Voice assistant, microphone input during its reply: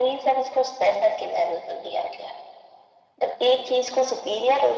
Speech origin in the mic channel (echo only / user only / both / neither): echo only